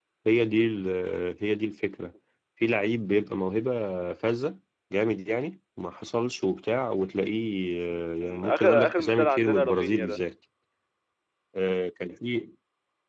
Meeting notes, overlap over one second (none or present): present